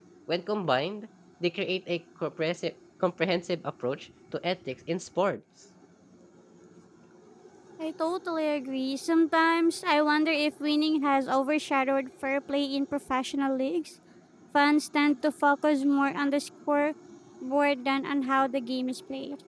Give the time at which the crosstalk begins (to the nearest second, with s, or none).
none